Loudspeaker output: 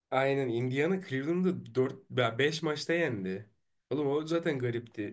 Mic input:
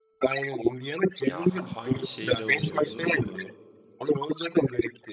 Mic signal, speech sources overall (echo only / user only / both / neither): both